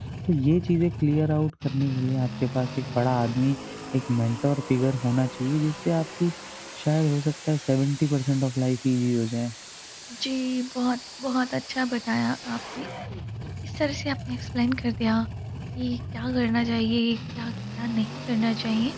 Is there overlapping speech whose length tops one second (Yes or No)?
No